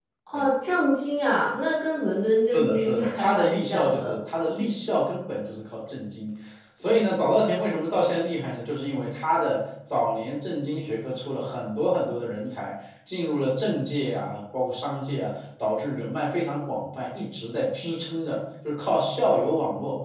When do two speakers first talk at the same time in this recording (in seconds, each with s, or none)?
2.5 s